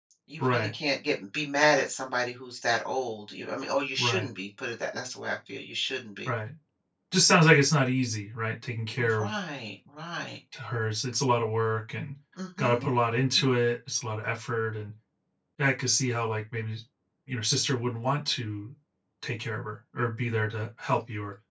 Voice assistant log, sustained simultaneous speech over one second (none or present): none